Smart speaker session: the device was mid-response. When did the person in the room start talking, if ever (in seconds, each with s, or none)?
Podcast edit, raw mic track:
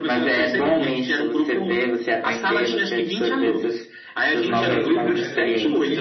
4.5 s